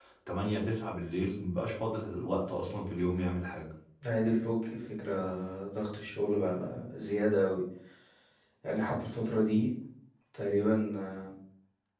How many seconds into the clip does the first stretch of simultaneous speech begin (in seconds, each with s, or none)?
none